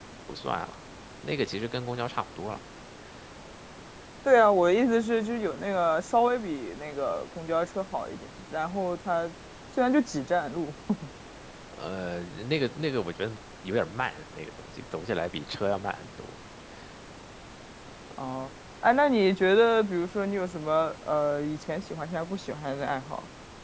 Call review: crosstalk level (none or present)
none